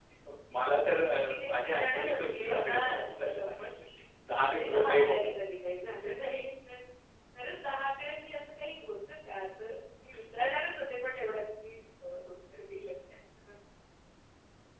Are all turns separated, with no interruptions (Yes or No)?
No